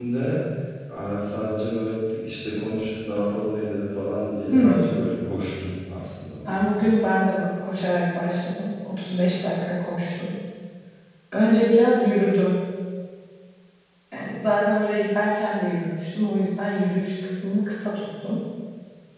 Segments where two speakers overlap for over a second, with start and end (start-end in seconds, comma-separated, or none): none